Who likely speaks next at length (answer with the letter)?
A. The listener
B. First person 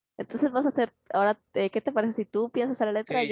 A